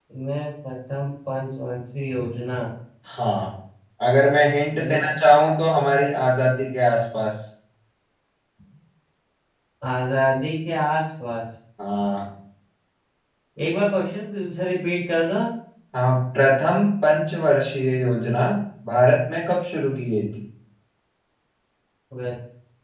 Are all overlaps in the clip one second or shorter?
Yes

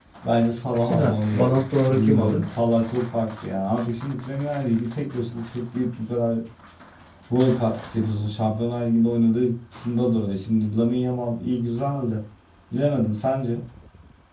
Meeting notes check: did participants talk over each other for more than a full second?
Yes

